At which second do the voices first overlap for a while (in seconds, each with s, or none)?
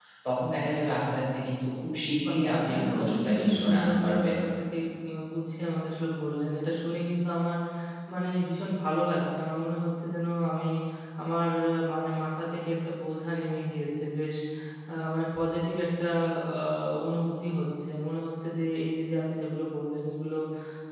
2.2 s